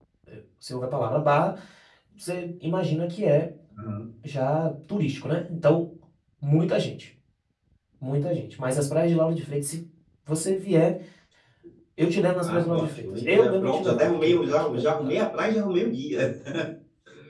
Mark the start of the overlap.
12 s

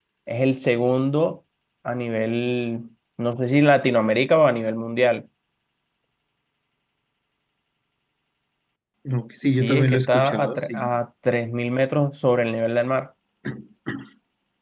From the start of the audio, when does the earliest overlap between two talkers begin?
10 s

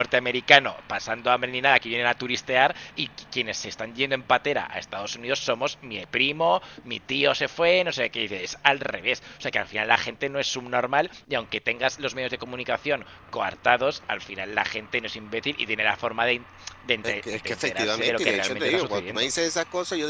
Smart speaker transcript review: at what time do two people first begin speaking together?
17 s

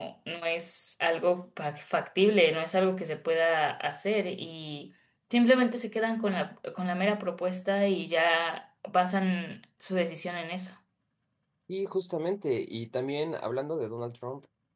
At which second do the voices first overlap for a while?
none

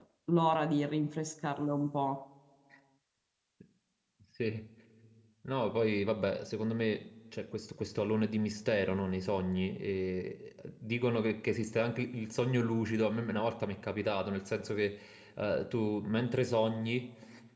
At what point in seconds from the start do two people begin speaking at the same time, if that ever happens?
none

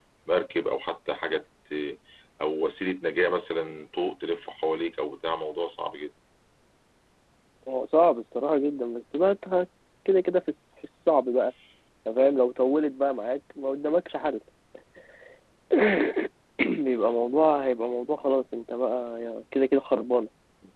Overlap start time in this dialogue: none

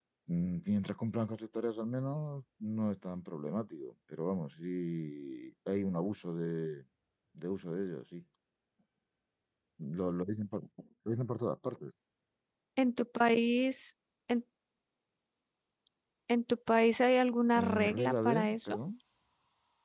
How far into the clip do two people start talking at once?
18 s

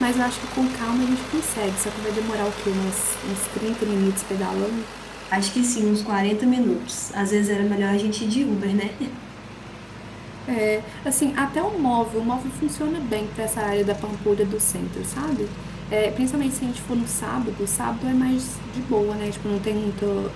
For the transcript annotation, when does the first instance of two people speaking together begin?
none

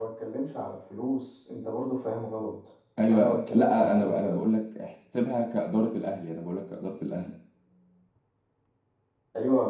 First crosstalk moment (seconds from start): 3 s

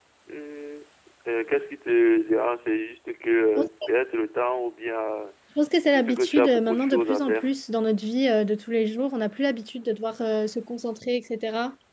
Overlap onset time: 6 s

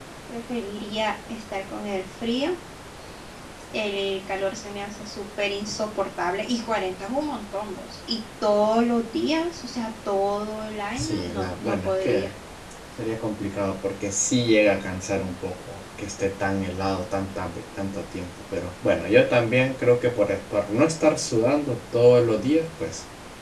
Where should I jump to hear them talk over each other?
11 s

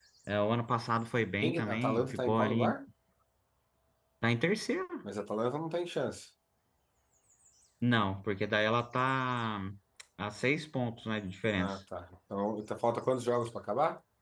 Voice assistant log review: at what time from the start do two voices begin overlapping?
1 s

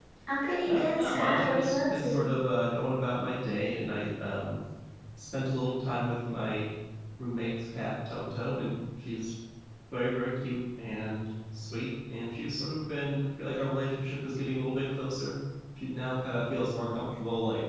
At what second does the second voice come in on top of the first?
1 s

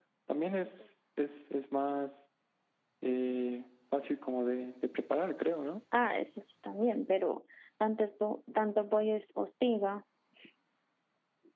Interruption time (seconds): none

